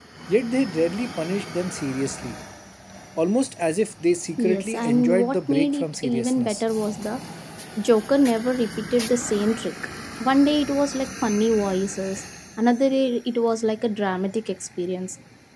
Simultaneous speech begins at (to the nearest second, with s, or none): 4 s